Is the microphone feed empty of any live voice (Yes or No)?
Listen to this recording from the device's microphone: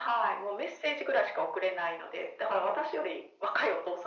Yes